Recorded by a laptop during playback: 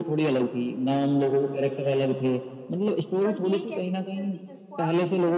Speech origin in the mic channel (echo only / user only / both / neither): both